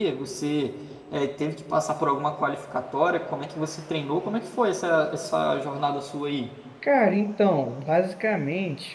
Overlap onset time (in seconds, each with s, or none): none